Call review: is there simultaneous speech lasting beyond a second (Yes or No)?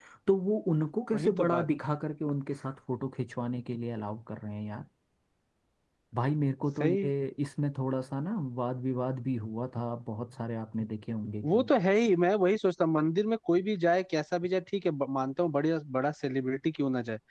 No